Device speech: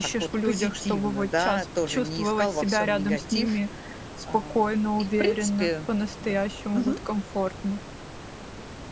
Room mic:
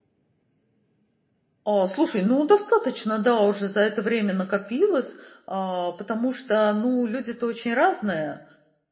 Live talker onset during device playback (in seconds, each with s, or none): 1.6 s